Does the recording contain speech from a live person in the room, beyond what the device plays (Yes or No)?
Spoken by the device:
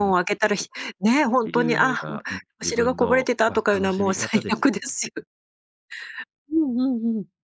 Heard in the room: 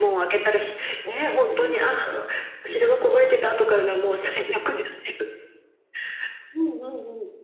No